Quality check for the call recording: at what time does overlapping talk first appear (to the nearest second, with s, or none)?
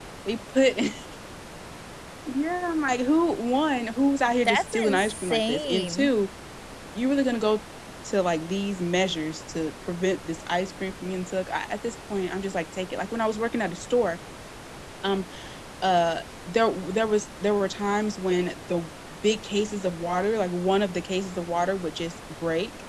4 s